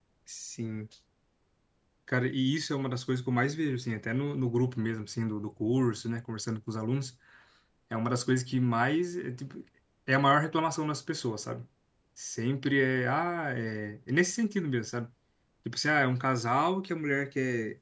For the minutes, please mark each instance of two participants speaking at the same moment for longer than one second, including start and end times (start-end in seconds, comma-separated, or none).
none